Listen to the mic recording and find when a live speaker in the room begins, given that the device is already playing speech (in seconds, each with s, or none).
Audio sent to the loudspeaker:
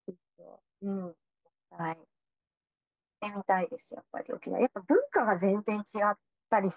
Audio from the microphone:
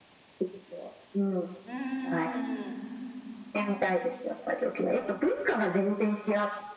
1.6 s